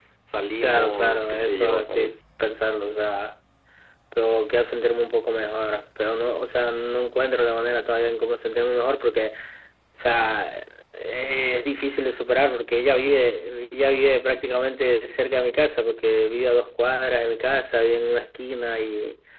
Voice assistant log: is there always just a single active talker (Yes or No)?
No